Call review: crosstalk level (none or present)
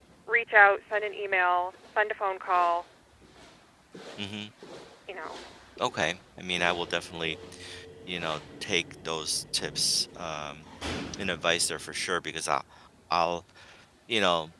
none